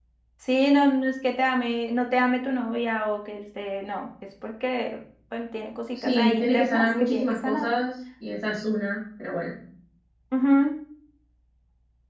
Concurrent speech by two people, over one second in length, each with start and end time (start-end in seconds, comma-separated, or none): 5.9-7.7